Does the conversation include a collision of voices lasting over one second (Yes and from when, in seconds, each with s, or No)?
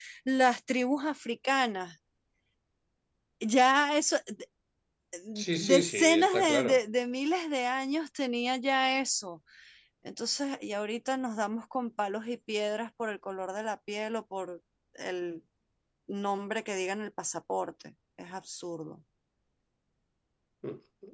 Yes, from 5.6 s